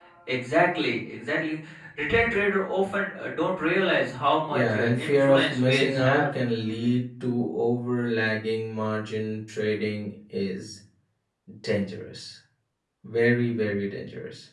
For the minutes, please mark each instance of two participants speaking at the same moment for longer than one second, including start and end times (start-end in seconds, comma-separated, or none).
4.5-6.3